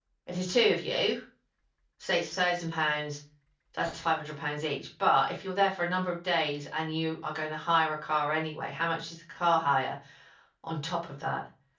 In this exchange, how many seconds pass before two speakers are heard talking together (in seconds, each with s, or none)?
none